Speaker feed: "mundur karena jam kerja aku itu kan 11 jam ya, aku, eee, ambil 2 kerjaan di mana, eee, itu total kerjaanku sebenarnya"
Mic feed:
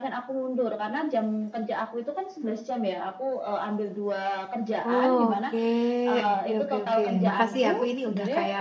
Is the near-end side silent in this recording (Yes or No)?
No